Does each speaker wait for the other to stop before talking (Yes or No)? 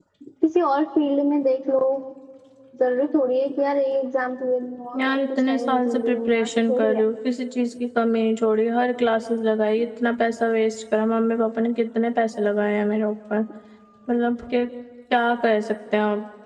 No